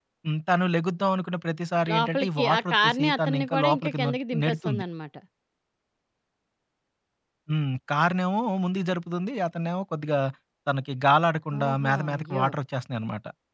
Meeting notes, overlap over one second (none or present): present